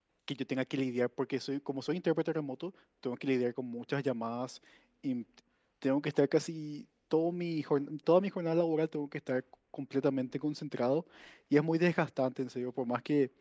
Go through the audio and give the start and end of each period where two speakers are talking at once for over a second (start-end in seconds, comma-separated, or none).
none